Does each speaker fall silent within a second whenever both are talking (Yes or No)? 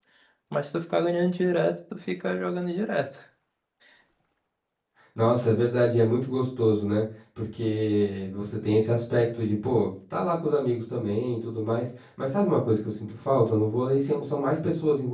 Yes